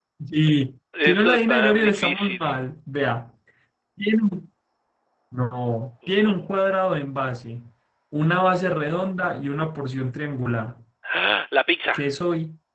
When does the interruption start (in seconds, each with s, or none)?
1.0 s